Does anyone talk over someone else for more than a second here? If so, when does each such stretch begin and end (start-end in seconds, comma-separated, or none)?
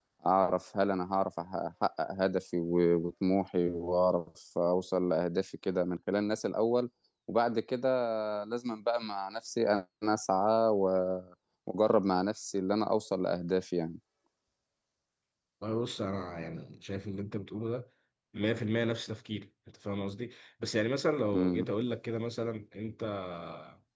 none